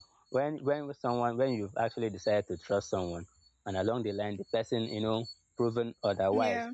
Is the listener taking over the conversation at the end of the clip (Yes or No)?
No